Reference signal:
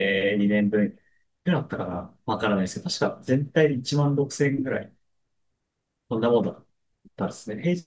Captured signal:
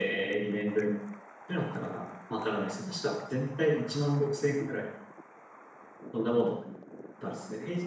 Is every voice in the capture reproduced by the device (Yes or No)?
Yes